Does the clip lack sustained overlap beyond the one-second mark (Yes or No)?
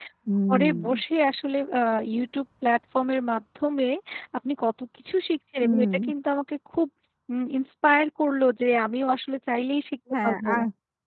Yes